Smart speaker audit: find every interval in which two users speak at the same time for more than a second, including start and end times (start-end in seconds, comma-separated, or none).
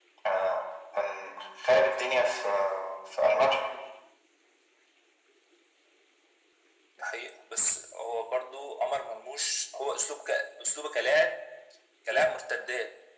none